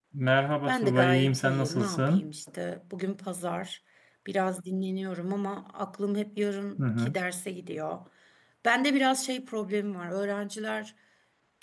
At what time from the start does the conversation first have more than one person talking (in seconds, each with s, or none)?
0.7 s